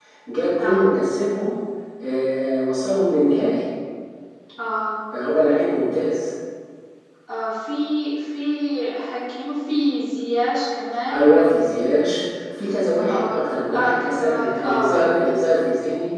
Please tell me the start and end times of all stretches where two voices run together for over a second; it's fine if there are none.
13.7-14.9

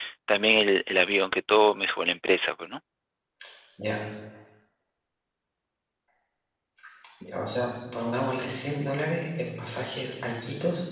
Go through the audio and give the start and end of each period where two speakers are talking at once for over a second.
none

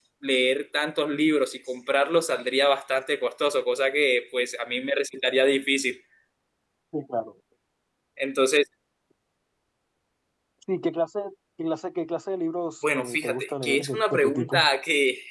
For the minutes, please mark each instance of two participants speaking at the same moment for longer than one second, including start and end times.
12.9-14.7

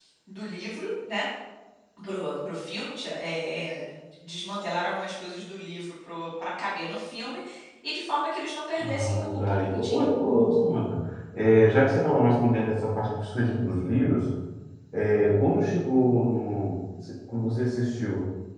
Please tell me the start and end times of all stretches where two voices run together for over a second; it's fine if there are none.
8.8-10.0

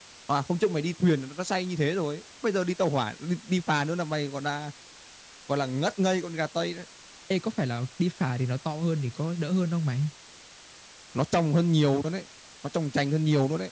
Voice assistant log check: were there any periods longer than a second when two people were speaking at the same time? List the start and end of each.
none

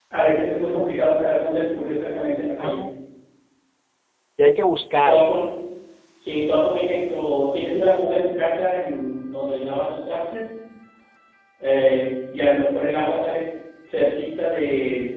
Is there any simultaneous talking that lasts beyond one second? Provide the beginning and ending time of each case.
none

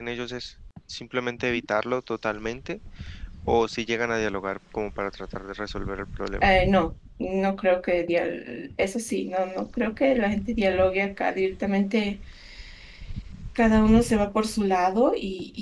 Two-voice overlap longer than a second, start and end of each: none

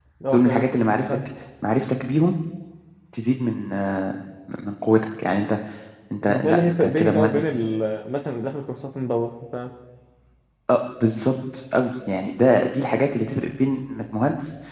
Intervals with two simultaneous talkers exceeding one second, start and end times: 6.2-7.5

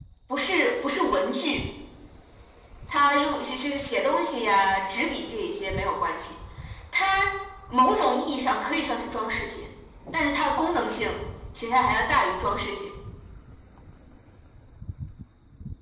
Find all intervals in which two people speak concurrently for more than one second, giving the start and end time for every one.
none

